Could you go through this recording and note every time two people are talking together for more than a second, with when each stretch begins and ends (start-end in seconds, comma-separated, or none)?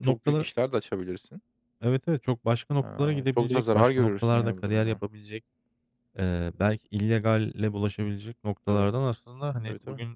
2.8-5.0